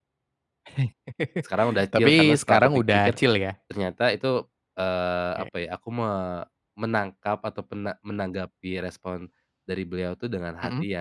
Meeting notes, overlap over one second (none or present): present